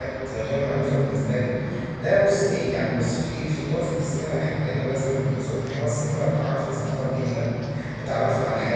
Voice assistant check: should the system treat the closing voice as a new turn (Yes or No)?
No